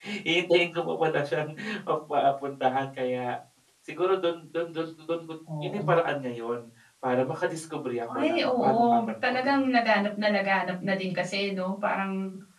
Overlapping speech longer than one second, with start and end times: 8.1-9.6

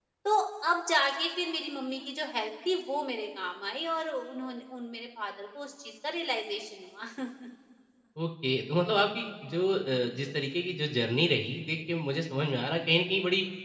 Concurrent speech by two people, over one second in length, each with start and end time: none

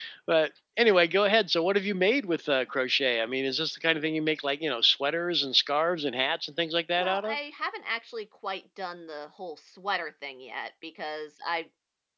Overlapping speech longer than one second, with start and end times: none

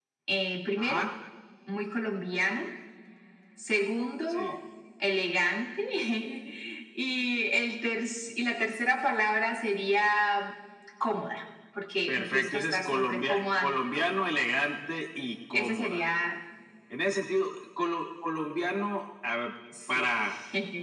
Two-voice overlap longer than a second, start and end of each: 12.1-14.1

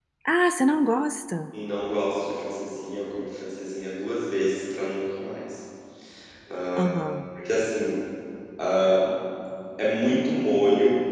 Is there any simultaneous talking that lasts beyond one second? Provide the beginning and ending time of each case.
none

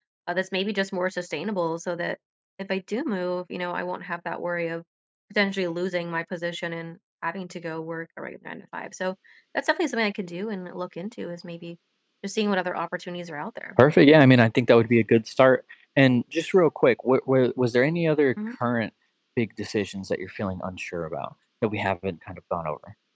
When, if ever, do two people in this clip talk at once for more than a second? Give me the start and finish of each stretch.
none

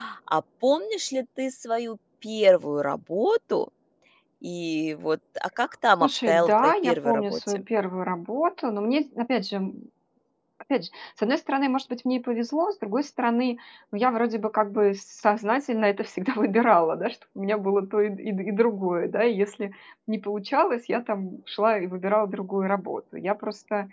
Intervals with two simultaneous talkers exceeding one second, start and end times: 6.0-7.6

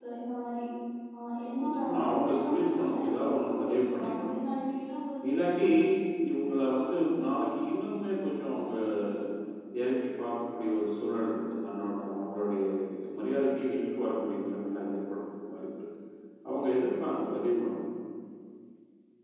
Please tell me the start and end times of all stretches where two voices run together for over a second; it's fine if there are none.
1.6-4.4

